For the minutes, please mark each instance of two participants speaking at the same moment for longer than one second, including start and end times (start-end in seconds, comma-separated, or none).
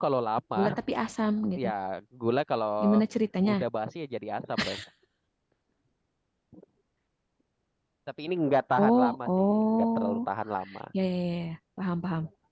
8.8-10.2